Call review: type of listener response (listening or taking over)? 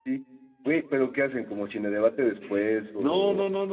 taking over